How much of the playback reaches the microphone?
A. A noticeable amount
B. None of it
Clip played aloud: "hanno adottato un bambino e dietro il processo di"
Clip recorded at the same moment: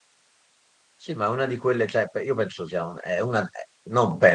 B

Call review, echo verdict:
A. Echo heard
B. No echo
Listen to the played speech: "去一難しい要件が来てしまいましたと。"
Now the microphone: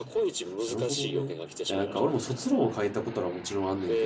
A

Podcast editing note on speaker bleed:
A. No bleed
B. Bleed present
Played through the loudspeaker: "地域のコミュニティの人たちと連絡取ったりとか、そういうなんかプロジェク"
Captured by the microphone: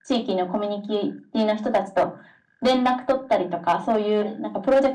B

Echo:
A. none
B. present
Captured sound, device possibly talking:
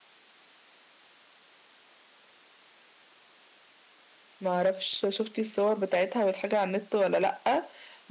A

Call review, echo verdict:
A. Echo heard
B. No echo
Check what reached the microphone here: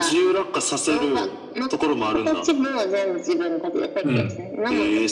A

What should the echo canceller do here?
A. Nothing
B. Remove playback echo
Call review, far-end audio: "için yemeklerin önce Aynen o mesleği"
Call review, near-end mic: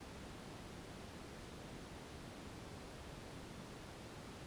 A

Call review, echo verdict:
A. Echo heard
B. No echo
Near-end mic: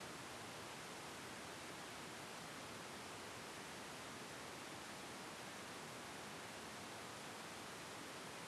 B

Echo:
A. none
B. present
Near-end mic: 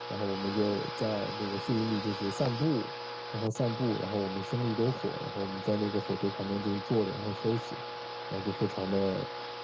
B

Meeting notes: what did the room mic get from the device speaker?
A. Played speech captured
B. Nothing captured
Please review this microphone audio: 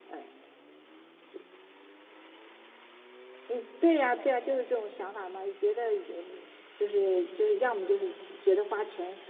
B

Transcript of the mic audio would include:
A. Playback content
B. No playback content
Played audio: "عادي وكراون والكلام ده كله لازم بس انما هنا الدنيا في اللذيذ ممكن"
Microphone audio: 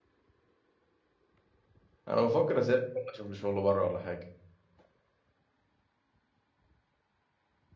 B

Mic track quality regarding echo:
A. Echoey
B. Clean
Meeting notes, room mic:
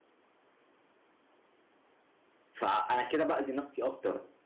B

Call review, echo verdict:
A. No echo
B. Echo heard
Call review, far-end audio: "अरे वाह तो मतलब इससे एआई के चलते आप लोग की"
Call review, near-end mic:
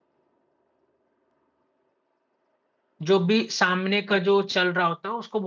A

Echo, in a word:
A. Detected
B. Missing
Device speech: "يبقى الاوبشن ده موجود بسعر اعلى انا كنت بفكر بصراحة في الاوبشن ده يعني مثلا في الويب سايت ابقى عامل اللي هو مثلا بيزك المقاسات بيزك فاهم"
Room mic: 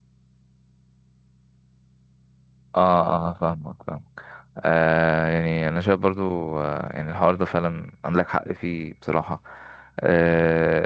B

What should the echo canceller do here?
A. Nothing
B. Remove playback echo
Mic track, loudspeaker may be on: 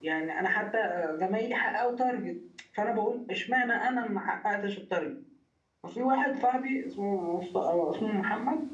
A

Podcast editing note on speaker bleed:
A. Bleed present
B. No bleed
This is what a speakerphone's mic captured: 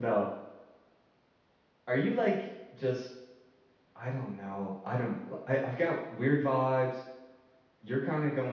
B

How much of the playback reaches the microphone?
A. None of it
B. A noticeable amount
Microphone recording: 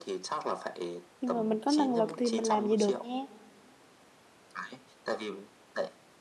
B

